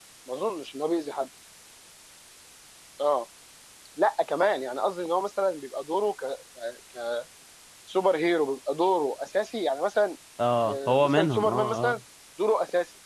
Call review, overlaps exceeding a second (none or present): present